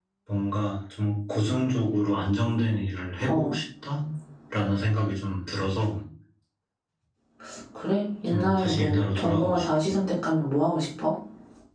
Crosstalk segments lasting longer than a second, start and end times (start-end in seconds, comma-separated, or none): 8.3-9.9